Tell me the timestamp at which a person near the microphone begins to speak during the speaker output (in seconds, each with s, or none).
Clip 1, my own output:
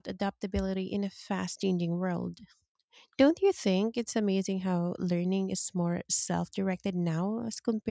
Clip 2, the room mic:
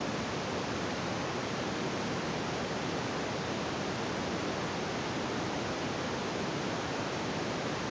none